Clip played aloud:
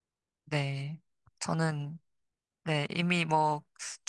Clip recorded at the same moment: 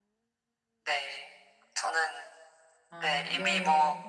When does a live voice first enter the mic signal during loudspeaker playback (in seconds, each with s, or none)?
2.9 s